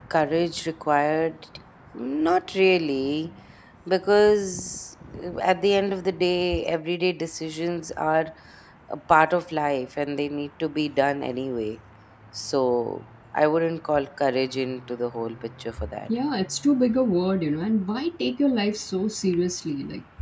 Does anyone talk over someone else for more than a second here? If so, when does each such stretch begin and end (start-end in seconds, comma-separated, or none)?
none